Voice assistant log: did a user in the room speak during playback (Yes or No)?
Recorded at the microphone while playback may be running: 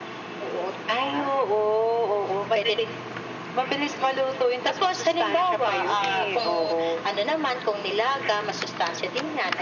No